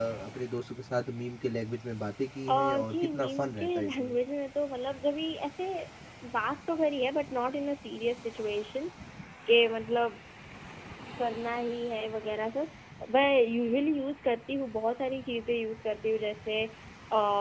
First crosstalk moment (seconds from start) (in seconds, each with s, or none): 2.5 s